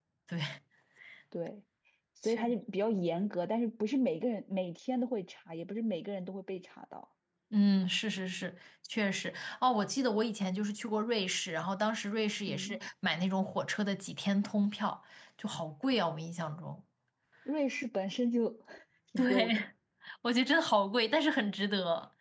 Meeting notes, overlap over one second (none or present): none